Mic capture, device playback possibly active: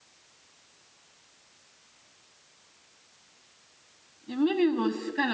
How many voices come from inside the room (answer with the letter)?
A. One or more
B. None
A